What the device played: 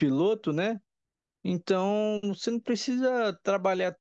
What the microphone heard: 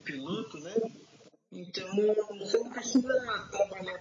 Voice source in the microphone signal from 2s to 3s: echo only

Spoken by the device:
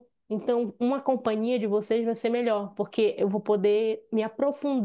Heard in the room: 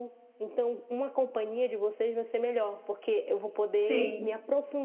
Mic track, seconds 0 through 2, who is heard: echo only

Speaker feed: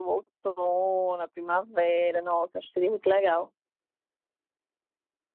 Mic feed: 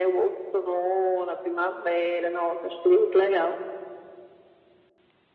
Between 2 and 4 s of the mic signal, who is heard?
echo only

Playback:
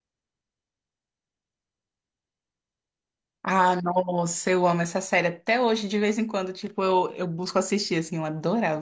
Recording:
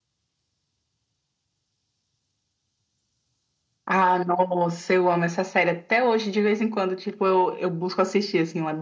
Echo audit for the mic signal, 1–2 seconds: neither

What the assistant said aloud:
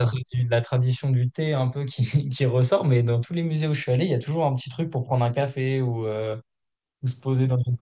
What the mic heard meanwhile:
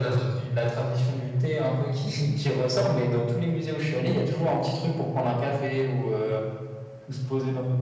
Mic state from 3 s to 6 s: echo only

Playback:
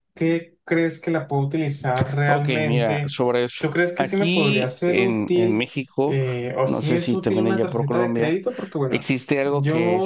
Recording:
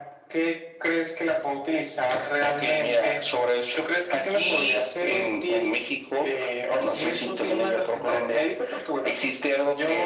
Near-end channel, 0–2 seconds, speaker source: echo only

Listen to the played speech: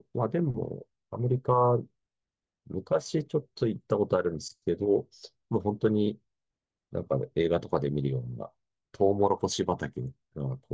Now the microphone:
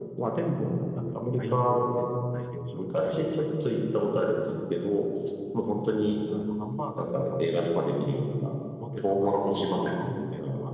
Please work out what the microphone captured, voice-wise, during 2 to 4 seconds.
both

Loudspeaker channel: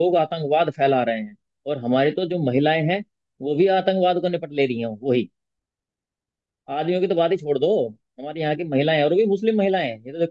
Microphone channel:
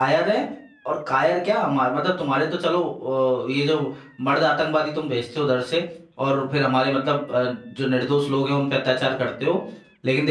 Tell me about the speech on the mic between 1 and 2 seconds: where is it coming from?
user only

